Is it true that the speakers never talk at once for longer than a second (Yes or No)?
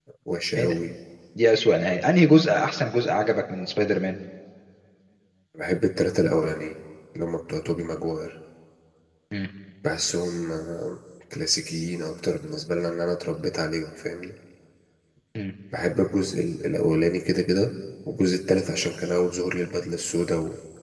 Yes